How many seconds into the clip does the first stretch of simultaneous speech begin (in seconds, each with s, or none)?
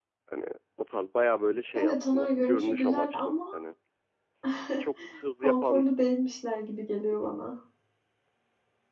1.7 s